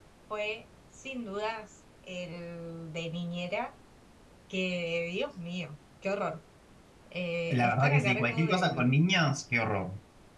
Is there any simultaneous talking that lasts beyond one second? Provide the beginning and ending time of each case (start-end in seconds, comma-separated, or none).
7.5-8.9